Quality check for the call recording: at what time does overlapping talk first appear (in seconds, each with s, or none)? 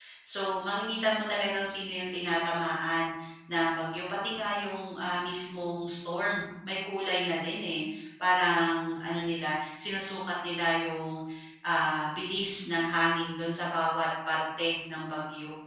none